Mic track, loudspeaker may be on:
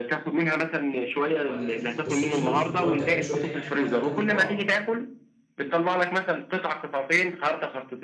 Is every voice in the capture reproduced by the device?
No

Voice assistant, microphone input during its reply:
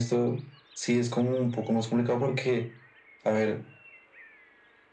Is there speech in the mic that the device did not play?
No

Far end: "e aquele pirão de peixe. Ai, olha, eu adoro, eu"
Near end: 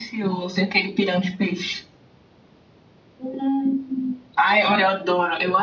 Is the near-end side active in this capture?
No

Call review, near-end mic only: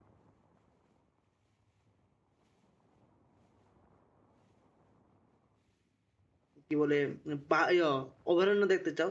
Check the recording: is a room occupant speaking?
Yes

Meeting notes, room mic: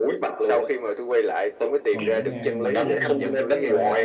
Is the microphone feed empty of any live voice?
No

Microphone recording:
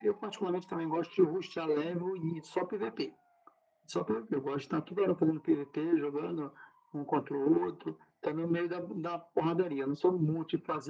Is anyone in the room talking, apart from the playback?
No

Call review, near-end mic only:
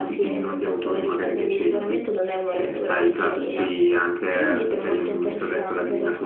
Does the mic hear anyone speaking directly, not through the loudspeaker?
No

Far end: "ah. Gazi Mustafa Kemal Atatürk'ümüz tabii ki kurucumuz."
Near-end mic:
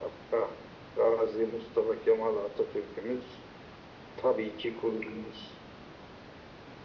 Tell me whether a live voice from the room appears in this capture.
No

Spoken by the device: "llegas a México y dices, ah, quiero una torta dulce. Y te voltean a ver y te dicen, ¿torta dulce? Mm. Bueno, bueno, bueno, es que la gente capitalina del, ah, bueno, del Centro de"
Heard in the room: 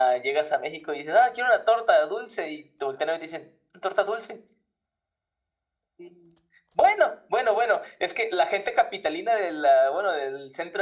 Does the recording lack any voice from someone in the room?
Yes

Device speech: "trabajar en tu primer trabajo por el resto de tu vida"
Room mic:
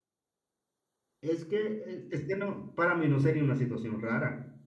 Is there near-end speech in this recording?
Yes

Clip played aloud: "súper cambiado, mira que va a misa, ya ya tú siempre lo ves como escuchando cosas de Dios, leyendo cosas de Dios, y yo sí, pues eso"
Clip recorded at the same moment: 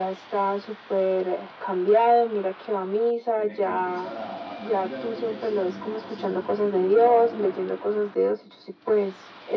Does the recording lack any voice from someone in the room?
No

